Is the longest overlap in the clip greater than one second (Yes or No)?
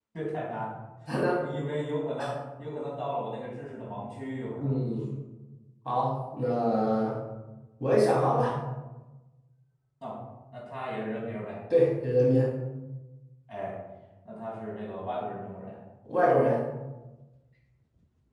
No